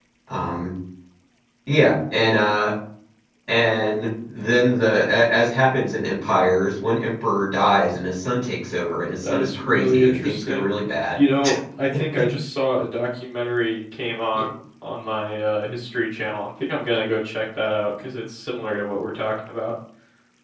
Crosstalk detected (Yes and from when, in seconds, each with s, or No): Yes, from 9.2 s